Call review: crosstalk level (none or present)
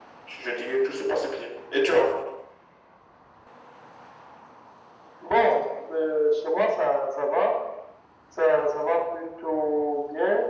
none